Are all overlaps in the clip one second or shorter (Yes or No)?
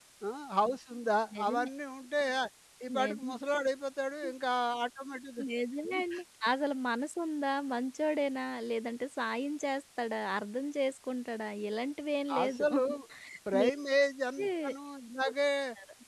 Yes